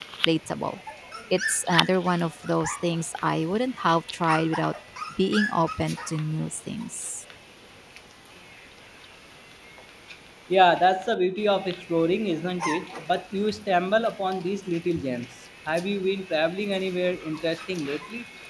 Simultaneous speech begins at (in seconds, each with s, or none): none